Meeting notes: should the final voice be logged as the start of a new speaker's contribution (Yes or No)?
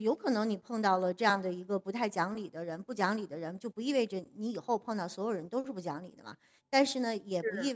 No